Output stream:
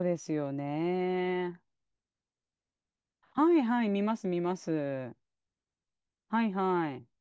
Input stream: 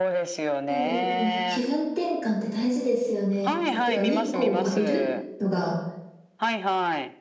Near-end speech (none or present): present